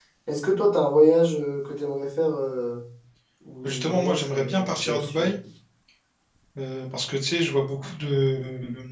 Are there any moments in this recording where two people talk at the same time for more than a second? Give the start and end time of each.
3.6-5.3

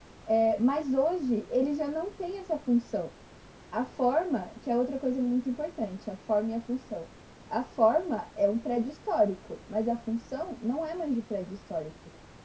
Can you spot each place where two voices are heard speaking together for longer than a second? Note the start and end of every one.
none

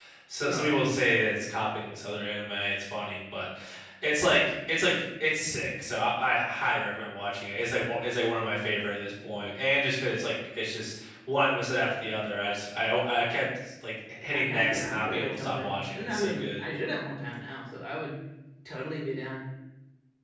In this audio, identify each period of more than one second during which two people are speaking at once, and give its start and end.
14.3-16.4

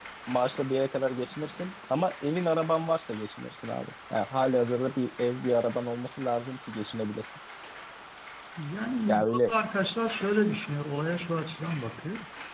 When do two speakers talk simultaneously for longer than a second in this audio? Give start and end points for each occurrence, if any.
none

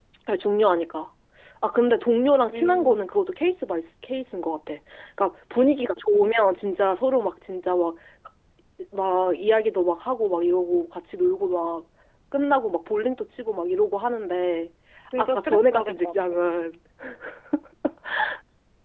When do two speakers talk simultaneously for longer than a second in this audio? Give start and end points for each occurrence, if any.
15.2-16.4

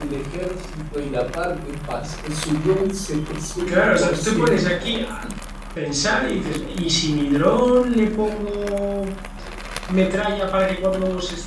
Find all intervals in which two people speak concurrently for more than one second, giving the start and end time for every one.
3.7-5.0

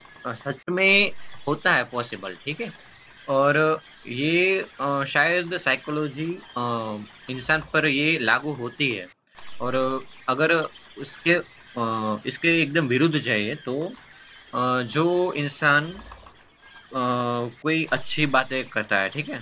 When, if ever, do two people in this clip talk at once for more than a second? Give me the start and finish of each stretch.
none

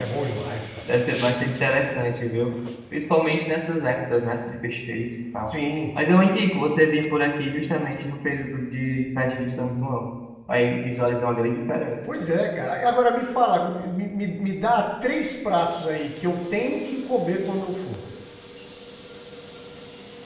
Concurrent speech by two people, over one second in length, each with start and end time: none

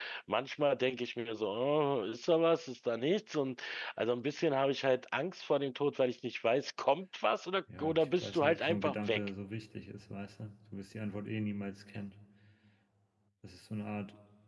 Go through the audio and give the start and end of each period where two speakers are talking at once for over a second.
7.8-9.2

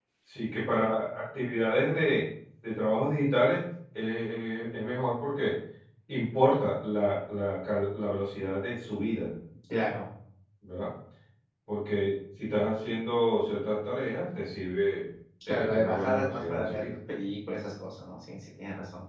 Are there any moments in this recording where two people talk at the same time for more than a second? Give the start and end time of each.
15.5-16.9

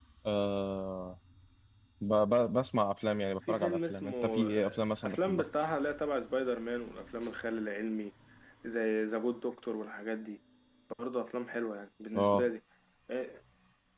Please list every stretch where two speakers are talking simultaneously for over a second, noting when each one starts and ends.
3.5-5.5

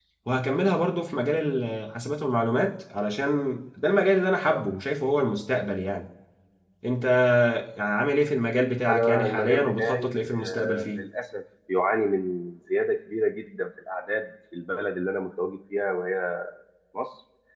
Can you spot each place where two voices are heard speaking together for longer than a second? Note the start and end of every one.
8.9-11.0

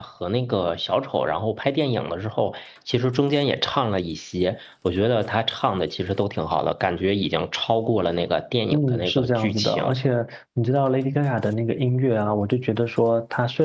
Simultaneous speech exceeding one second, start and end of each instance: 8.7-9.9

